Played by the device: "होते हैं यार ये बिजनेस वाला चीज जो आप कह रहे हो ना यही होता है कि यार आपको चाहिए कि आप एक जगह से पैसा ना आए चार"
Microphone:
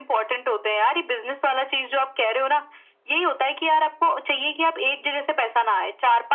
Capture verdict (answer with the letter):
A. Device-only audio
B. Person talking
A